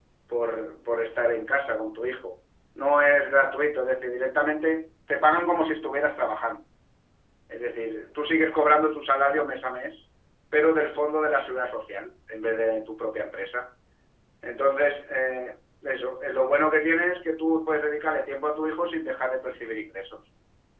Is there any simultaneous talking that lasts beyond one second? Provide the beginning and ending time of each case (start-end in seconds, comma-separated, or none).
none